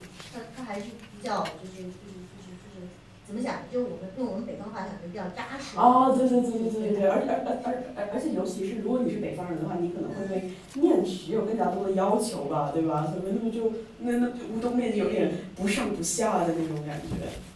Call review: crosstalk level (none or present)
present